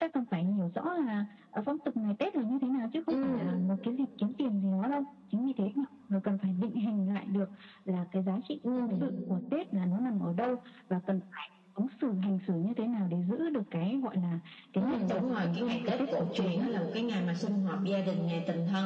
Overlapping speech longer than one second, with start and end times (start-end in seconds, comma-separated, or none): 14.8-16.7